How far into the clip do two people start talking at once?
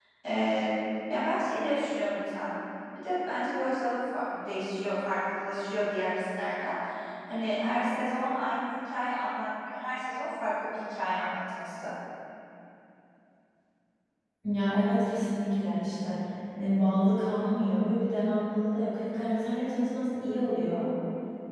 none

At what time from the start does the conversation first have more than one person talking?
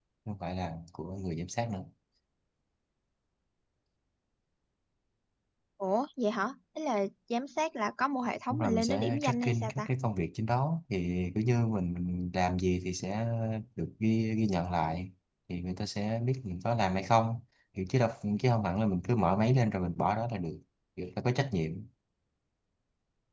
8 s

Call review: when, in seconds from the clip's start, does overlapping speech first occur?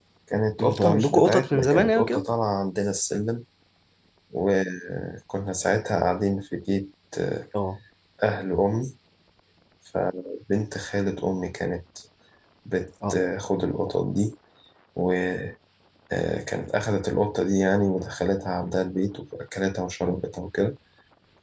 1 s

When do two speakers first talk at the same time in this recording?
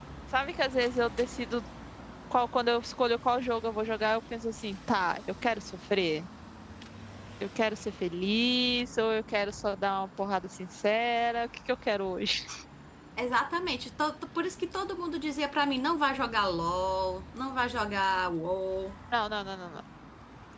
none

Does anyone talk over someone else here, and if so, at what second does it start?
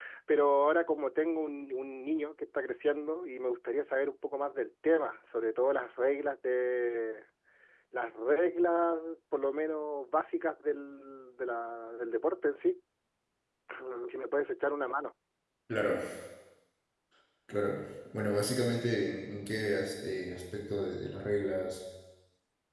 none

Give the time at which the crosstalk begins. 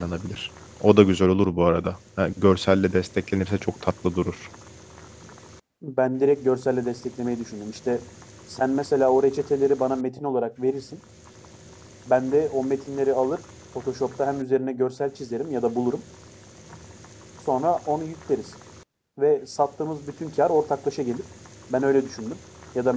none

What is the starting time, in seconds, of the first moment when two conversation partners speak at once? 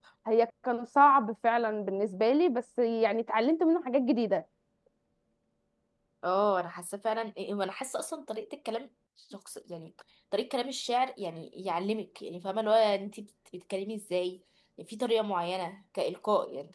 none

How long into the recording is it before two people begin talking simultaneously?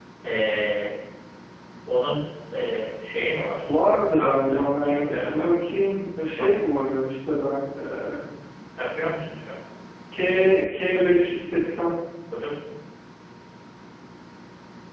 4 s

